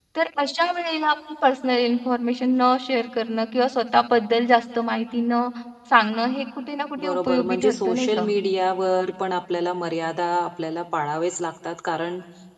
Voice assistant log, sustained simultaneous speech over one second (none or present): present